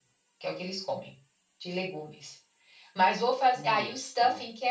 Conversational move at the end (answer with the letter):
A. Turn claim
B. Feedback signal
B